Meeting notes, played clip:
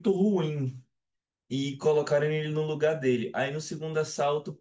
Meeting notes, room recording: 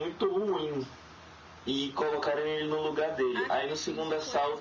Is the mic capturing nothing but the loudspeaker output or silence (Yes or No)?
No